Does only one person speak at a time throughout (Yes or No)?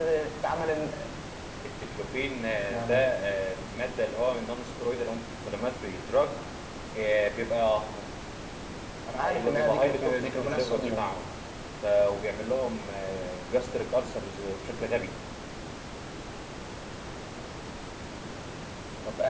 No